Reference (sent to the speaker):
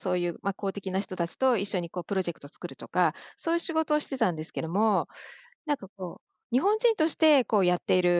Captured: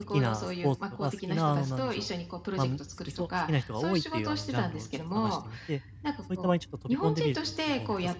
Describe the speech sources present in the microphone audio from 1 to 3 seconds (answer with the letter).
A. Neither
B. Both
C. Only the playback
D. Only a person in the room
B